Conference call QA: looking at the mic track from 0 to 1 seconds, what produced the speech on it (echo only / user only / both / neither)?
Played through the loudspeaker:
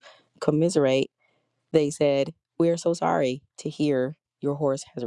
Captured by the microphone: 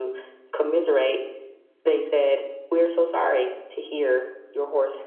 echo only